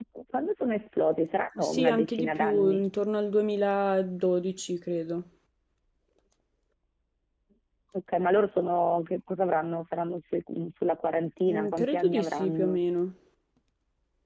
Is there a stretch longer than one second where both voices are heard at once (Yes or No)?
Yes